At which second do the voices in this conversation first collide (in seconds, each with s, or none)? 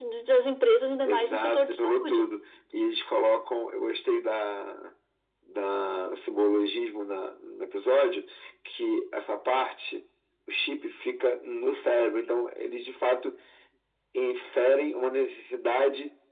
1.1 s